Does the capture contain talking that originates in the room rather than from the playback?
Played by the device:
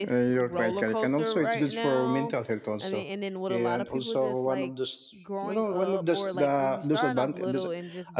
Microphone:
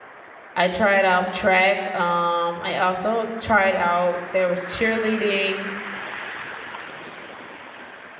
Yes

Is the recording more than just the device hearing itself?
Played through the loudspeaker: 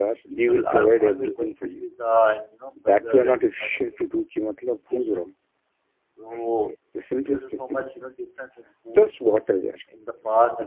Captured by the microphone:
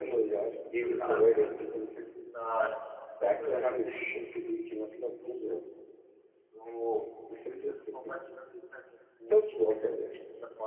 No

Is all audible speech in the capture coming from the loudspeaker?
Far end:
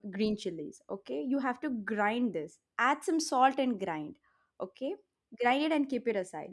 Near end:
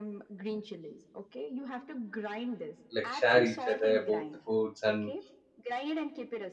No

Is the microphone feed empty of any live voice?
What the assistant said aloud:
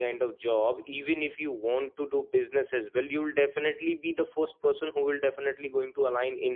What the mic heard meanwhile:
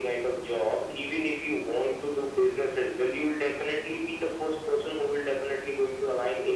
Yes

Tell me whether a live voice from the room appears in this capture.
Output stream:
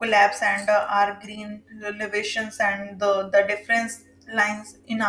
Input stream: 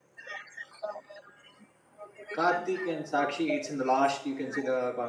Yes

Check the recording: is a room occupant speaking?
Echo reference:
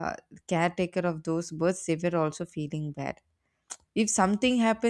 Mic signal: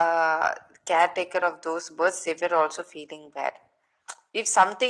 No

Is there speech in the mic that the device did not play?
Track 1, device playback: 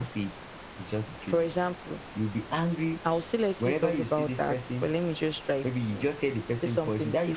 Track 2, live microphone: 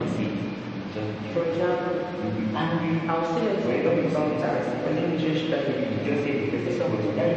No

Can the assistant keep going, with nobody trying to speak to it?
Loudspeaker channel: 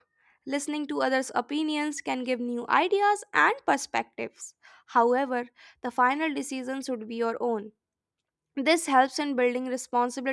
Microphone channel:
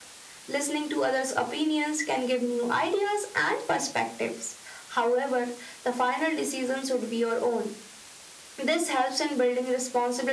Yes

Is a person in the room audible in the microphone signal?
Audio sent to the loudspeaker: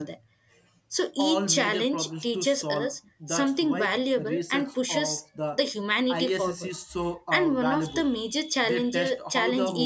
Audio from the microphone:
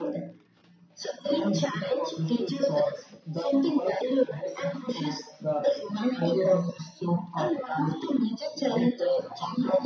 No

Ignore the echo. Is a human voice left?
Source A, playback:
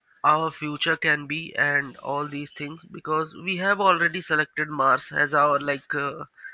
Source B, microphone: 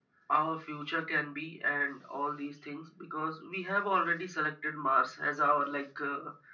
No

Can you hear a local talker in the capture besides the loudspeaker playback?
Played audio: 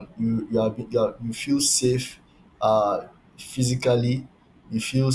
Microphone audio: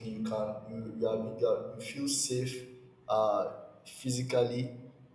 No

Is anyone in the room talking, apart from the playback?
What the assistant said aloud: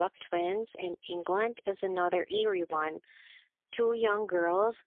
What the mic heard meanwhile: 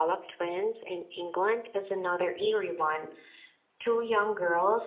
No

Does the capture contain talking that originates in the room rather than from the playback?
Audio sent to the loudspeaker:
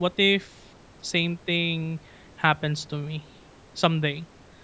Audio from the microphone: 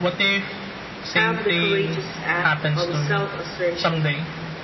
Yes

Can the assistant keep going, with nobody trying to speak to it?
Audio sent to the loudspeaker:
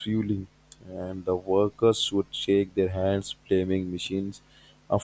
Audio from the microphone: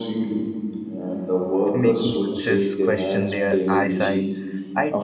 No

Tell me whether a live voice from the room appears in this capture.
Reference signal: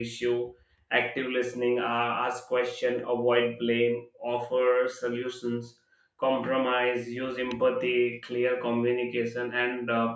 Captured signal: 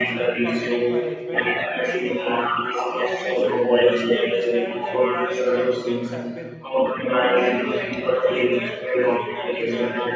Yes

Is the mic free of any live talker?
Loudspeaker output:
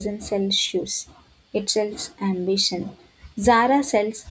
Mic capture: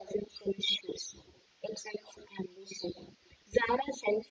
Yes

